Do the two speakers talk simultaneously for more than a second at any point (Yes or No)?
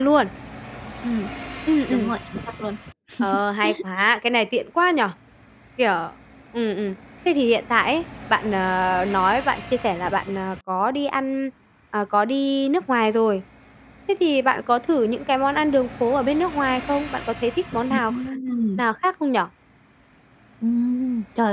No